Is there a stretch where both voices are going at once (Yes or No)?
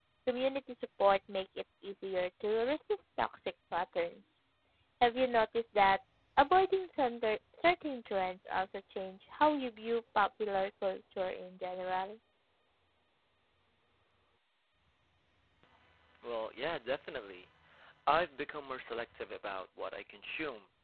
No